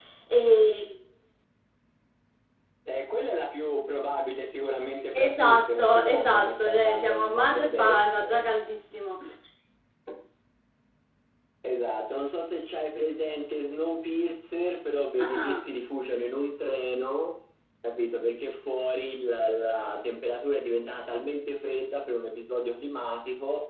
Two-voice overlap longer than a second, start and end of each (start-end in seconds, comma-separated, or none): 5.1-8.4